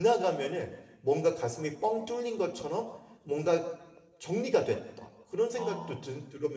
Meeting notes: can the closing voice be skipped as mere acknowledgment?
Yes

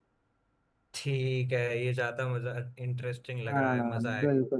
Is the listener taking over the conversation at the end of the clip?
Yes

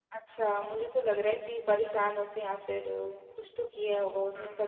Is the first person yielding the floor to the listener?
Yes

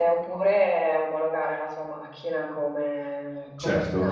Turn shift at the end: No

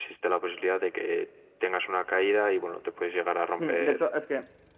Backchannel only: No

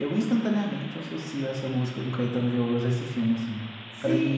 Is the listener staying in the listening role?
No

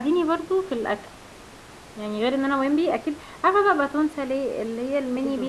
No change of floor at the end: Yes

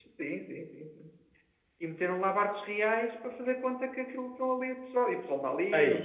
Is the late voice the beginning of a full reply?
No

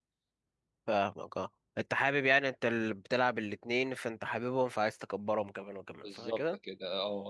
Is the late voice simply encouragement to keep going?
No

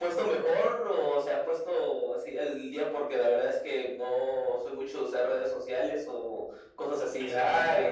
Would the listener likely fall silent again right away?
No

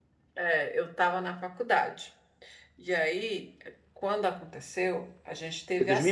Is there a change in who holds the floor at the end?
Yes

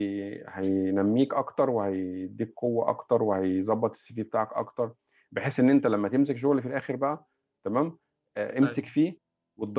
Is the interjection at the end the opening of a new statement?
No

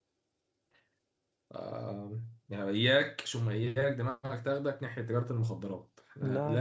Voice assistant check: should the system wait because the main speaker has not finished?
Yes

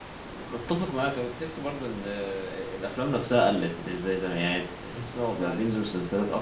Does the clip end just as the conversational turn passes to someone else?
No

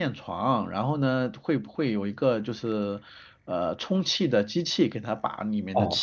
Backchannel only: No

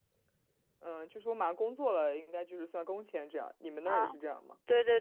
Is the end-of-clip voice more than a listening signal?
Yes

